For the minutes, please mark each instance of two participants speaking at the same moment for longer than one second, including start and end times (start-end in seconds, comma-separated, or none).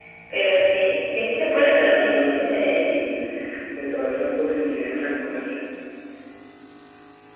1.5-3.0